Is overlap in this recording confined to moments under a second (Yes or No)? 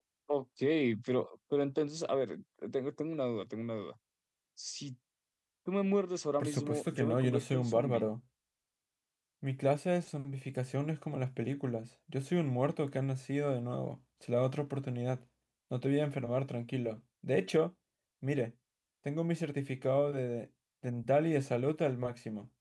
No